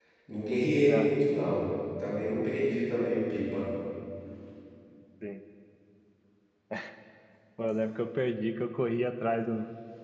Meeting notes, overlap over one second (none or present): none